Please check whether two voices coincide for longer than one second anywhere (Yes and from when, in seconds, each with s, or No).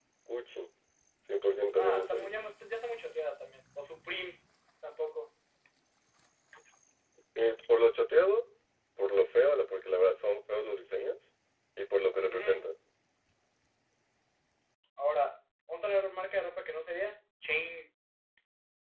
No